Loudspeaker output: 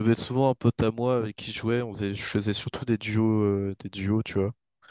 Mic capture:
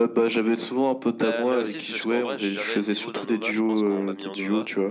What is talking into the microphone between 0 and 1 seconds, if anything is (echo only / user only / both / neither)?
echo only